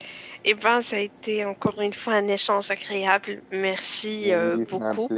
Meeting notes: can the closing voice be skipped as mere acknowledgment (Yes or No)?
No